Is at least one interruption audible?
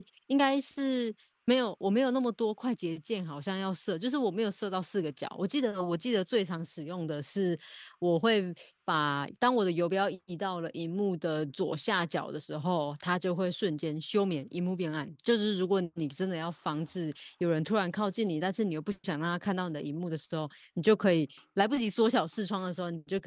No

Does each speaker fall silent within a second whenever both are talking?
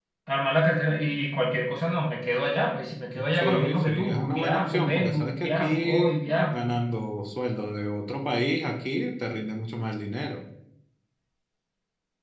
No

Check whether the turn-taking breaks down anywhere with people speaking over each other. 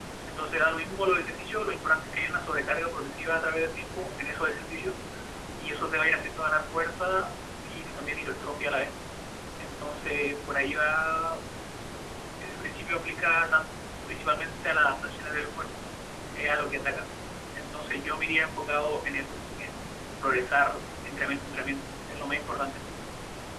No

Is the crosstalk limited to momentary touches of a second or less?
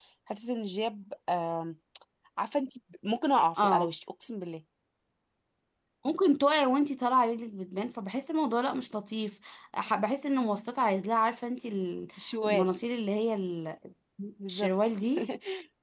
Yes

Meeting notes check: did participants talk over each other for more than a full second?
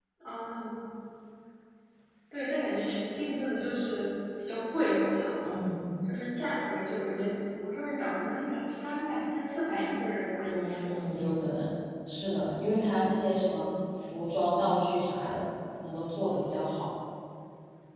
No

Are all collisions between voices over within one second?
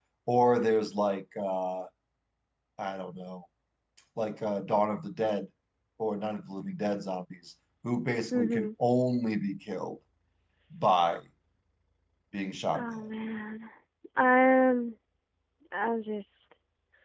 Yes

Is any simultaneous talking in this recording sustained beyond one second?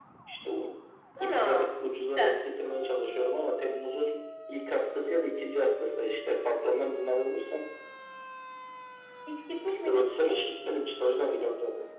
No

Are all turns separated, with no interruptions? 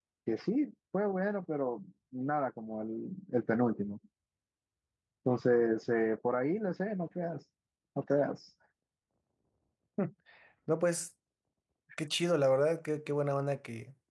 Yes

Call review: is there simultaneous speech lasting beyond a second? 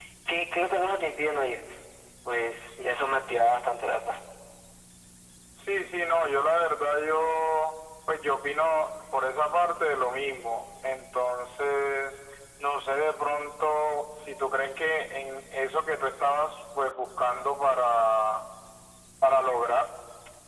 No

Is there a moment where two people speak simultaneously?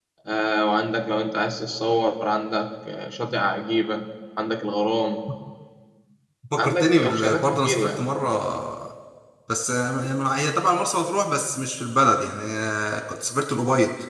Yes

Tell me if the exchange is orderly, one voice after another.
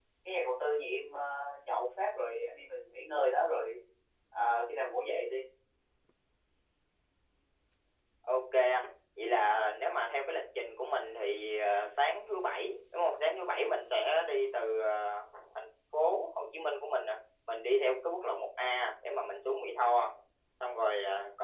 Yes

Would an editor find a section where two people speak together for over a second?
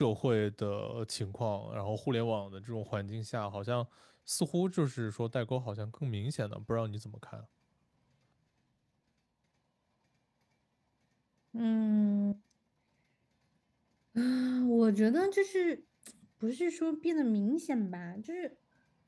No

